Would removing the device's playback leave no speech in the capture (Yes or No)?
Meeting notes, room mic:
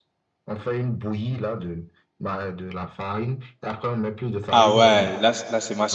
No